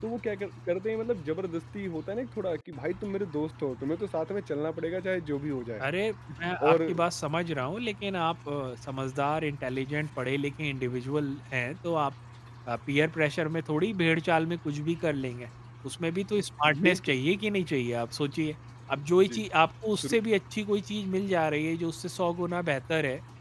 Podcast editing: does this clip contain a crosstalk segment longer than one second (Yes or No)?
No